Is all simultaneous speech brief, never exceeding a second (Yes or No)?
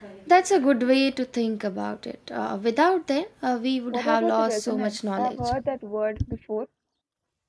No